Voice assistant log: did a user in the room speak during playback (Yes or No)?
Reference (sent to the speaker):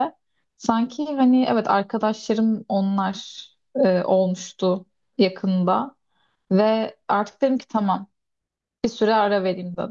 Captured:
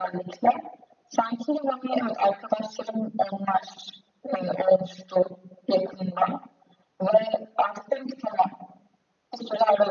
No